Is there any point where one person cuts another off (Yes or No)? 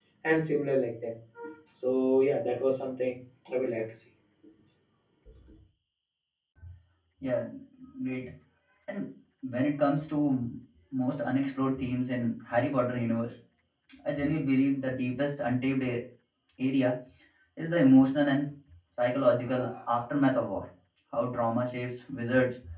No